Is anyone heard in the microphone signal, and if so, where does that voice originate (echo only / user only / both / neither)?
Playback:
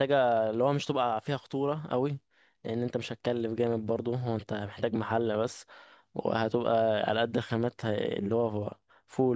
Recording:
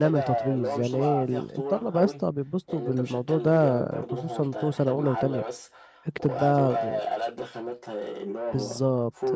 both